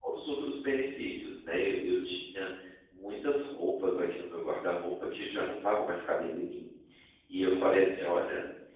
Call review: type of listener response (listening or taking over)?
listening